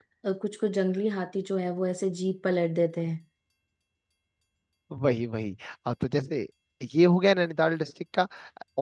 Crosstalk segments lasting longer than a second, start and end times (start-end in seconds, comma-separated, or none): none